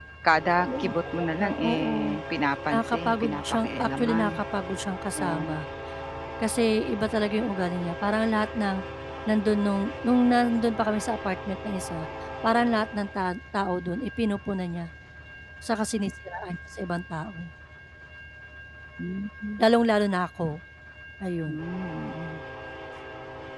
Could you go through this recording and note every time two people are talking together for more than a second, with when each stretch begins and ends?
0.6-1.9, 2.7-4.4

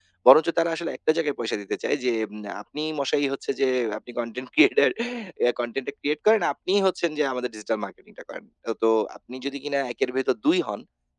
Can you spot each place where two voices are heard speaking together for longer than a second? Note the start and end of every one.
none

